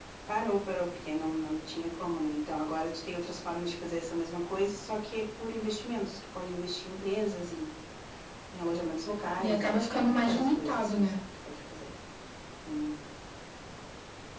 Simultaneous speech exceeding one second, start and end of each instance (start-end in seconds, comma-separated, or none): 9.4-11.2